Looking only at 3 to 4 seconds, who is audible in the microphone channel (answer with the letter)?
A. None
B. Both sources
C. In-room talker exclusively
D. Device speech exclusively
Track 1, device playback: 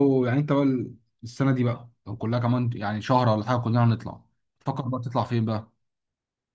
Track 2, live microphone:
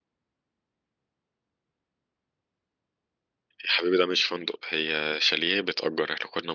C